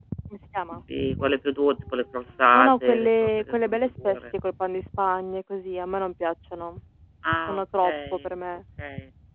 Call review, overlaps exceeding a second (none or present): present